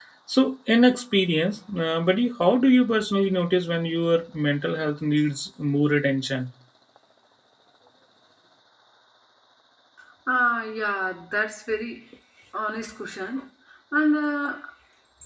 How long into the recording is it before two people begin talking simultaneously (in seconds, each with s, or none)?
none